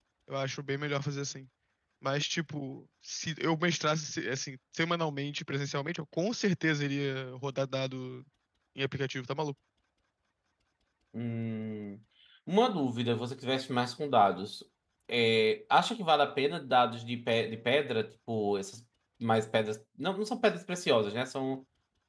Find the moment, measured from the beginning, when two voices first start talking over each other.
none

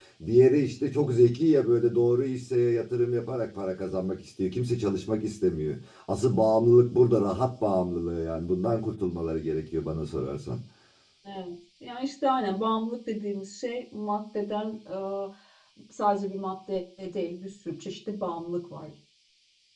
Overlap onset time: none

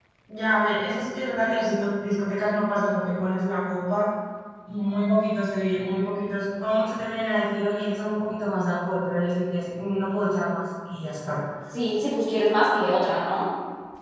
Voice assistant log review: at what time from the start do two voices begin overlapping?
none

